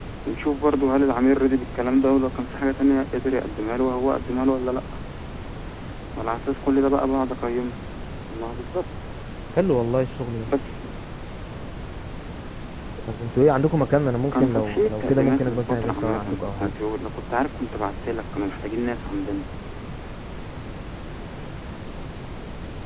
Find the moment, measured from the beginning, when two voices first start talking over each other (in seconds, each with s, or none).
14.3 s